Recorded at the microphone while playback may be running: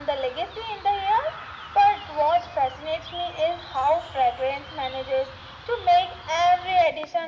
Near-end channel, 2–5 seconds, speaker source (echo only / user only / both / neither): echo only